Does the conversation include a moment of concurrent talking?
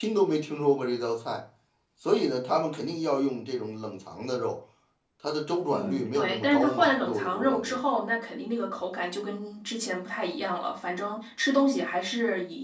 Yes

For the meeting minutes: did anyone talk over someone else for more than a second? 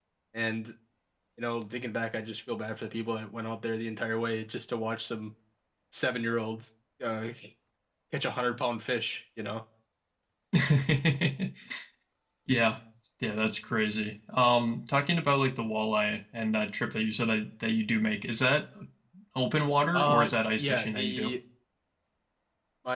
Yes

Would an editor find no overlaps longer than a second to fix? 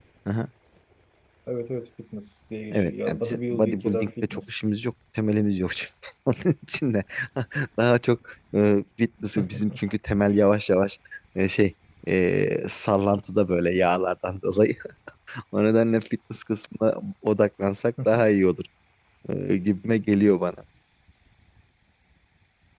No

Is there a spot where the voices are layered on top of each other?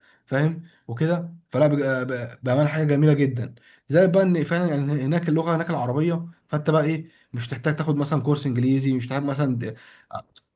No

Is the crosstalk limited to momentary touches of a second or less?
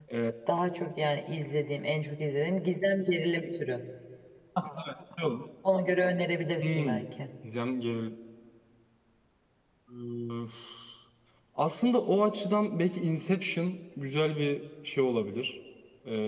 Yes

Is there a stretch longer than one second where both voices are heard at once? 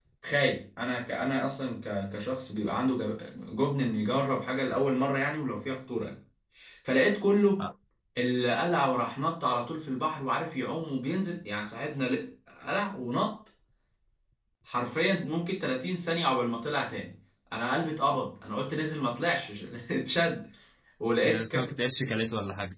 No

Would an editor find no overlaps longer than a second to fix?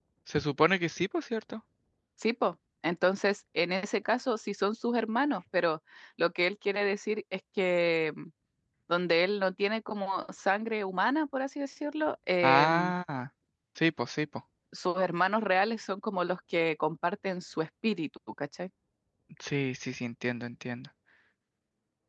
Yes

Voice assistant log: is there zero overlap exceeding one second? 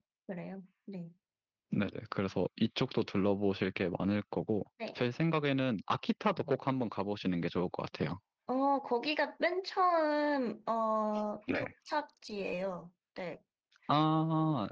Yes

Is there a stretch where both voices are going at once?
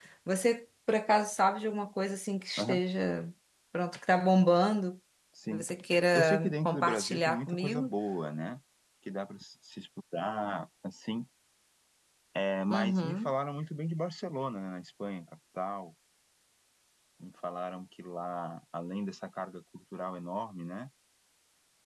Yes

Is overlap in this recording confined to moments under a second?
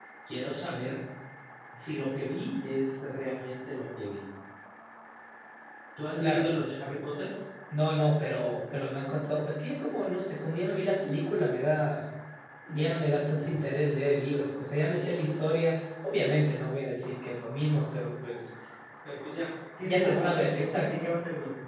No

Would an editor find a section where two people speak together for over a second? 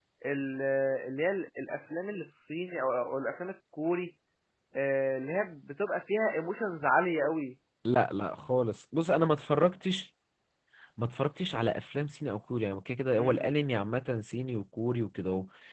No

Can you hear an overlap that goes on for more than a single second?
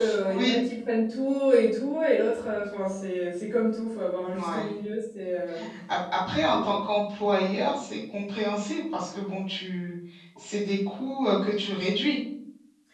No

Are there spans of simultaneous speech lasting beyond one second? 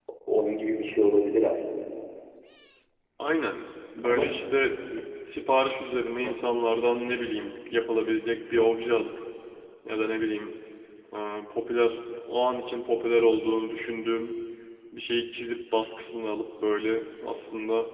No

